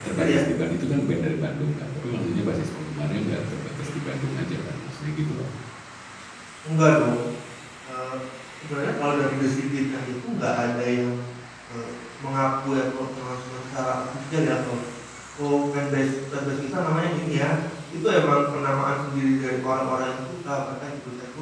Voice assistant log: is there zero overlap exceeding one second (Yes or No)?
Yes